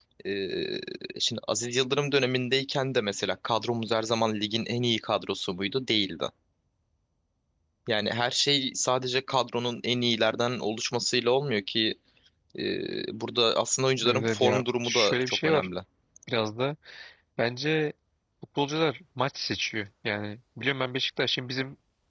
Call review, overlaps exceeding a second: present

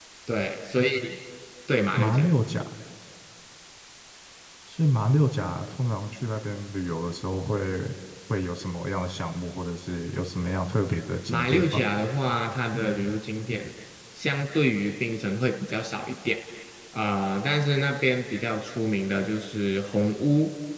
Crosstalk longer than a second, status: none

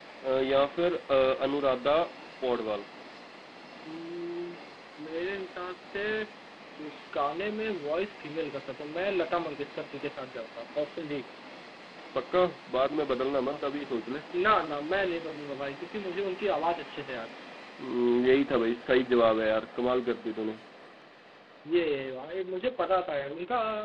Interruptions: none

